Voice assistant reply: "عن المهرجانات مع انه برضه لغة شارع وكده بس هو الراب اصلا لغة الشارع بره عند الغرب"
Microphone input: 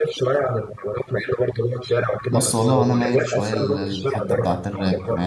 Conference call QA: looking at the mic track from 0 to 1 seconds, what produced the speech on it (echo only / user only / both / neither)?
echo only